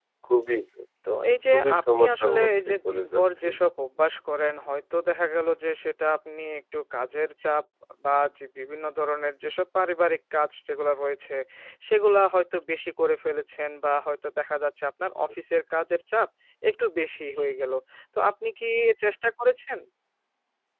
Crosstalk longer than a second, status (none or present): present